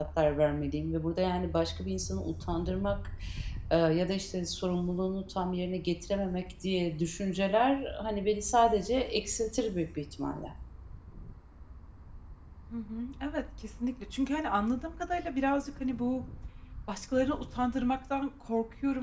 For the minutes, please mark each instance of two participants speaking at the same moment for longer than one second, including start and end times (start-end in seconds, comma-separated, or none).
none